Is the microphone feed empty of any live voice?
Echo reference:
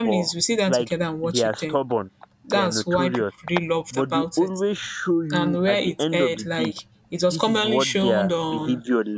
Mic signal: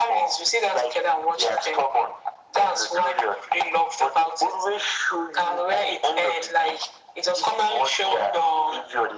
Yes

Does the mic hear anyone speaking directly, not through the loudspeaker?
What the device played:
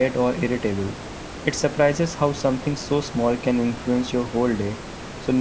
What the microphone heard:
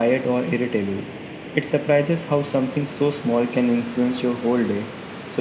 No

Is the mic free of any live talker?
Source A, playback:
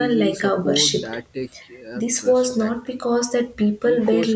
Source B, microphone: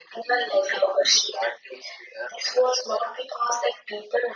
Yes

